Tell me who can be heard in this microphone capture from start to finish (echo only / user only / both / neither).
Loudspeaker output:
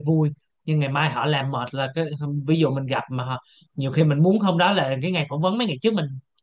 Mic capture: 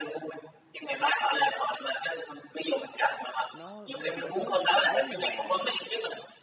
both